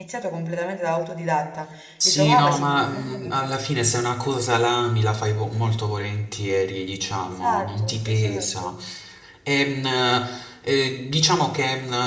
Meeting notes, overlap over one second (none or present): present